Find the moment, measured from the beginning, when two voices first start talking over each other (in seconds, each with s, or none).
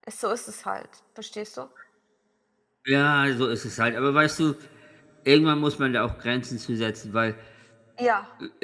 none